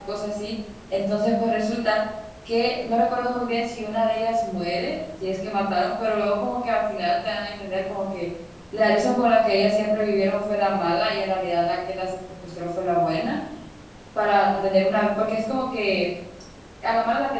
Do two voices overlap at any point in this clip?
No

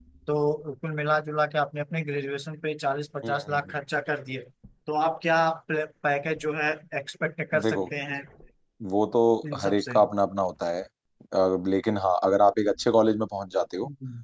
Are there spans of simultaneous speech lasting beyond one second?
No

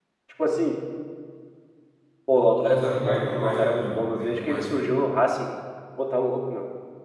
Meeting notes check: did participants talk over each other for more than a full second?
Yes, from 2.6 s

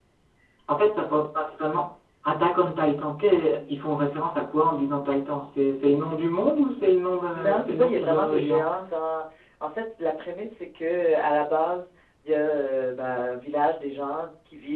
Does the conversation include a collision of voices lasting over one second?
Yes, from 7.3 s

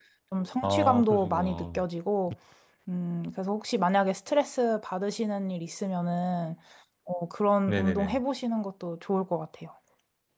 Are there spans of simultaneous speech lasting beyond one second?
Yes, from 0.6 s

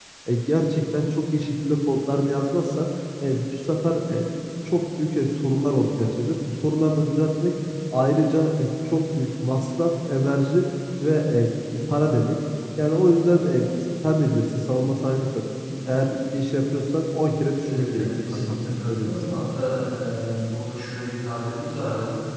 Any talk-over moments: Yes, from 17.6 s

